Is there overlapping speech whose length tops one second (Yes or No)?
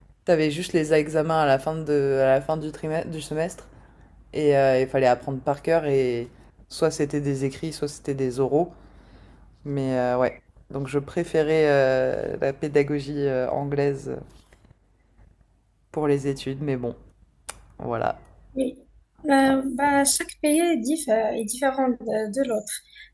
No